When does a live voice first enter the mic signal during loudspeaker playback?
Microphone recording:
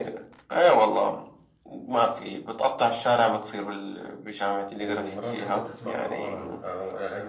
4.8 s

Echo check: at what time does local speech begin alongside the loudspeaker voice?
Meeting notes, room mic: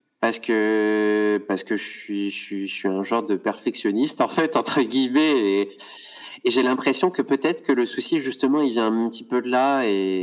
none

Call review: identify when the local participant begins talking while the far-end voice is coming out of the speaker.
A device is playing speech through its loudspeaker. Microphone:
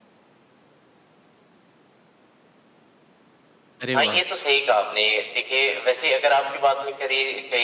3.8 s

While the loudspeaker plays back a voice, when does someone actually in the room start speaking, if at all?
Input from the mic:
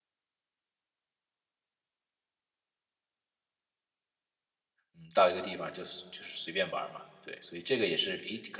4.9 s

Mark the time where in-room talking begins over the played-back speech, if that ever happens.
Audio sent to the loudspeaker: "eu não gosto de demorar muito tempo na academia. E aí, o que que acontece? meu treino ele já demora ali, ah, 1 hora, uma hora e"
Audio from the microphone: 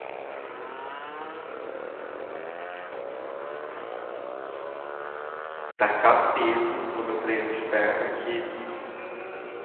5.8 s

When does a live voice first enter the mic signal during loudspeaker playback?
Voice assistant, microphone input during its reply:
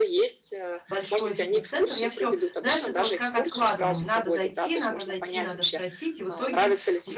0.9 s

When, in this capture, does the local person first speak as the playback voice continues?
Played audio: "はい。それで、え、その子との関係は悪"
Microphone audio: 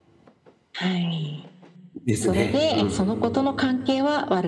2.0 s

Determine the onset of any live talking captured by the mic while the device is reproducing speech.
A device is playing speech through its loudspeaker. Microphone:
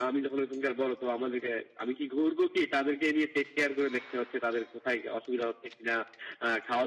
none

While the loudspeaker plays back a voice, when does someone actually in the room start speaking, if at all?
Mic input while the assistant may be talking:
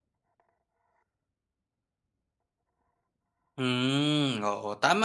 3.6 s

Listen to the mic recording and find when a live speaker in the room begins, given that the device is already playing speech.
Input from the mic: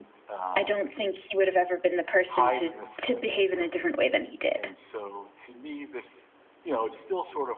0.6 s

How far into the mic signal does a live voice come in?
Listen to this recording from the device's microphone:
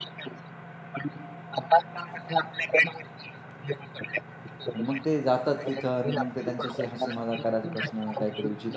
4.7 s

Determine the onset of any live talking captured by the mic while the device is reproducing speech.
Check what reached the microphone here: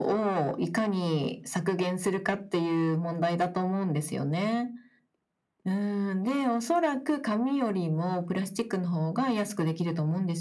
none

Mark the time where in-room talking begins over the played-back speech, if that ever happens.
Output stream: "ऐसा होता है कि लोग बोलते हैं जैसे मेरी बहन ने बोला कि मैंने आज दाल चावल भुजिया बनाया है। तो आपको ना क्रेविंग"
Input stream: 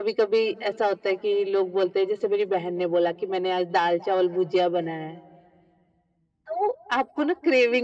none

